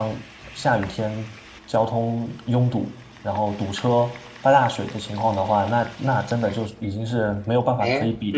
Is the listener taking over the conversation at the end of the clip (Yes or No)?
Yes